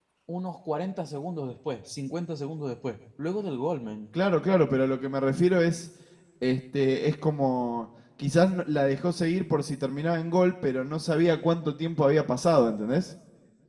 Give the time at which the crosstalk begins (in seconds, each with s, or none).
none